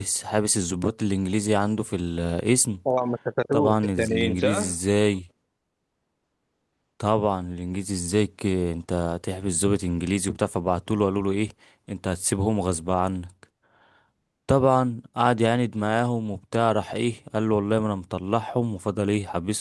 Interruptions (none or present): present